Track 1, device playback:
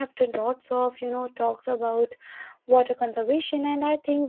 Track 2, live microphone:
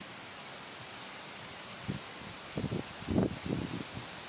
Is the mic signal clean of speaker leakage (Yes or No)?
Yes